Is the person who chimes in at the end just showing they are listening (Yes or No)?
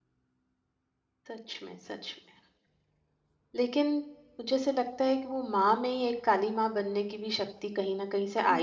Yes